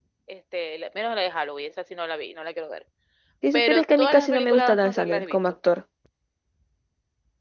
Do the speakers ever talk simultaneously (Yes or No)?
Yes